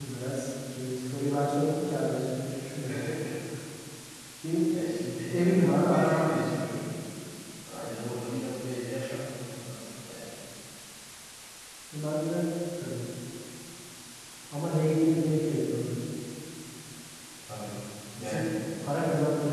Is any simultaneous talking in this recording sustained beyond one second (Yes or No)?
Yes